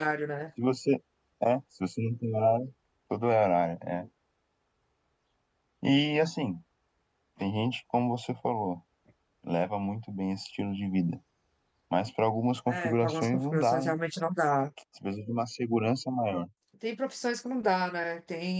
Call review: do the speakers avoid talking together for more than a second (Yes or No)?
No